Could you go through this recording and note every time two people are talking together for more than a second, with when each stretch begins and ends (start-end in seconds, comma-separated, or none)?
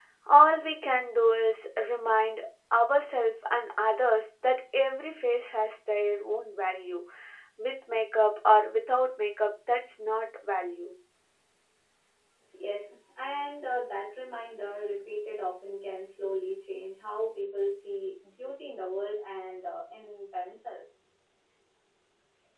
none